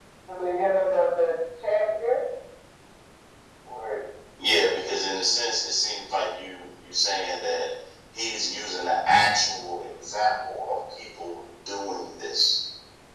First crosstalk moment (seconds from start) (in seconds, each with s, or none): none